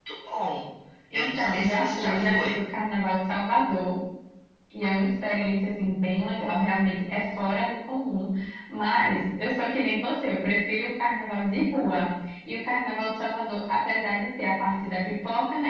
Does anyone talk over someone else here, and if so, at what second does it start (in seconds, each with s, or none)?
1.1 s